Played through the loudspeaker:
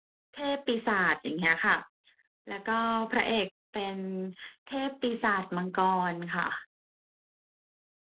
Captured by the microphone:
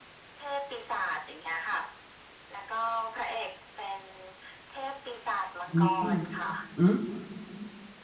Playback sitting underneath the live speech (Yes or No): Yes